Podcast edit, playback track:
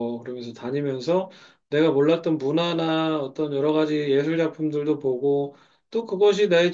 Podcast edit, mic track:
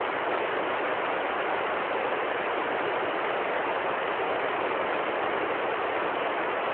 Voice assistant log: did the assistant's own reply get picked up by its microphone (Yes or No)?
No